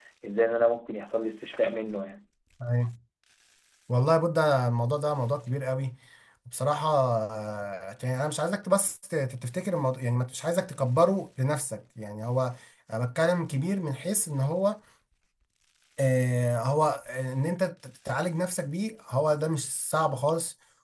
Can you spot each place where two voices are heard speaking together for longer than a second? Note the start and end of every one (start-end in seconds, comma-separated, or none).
none